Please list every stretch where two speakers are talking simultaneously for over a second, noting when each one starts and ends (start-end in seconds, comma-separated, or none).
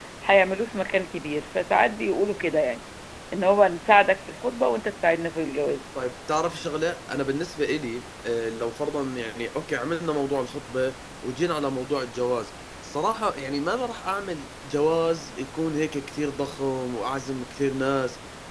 none